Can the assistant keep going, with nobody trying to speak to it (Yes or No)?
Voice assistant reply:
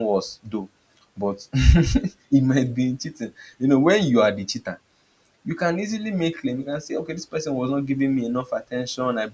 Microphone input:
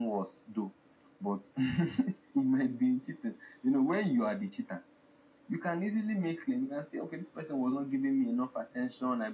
Yes